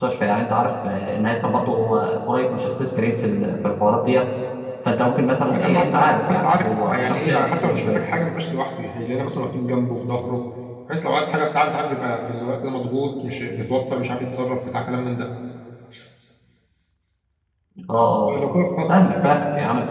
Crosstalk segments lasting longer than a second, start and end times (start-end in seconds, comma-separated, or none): 5.4-8.1